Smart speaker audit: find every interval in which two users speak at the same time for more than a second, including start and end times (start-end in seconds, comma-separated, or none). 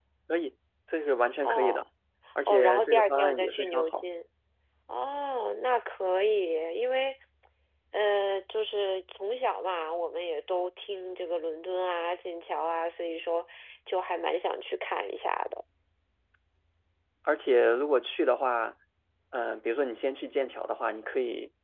2.5-4.0